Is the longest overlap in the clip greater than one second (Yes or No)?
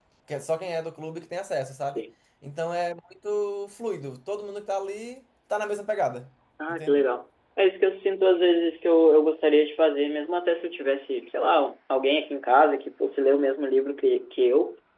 No